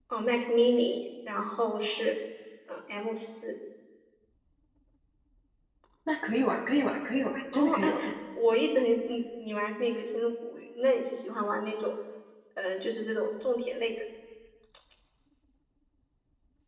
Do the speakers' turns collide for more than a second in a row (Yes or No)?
No